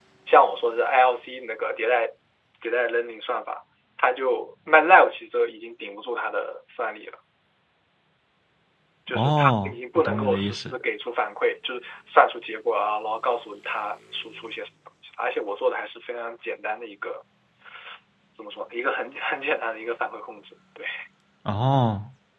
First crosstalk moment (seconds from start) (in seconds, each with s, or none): 9.2 s